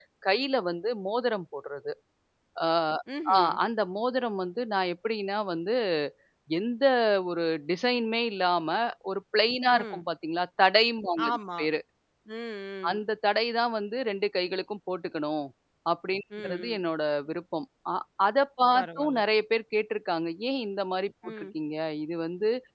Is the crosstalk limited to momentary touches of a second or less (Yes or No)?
Yes